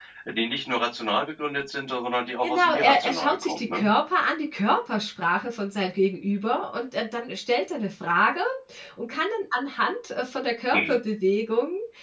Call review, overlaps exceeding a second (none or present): present